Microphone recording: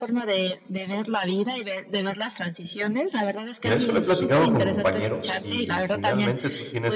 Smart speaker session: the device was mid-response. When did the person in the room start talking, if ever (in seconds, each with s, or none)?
3.6 s